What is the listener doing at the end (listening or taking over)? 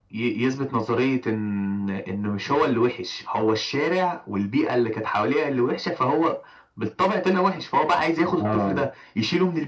listening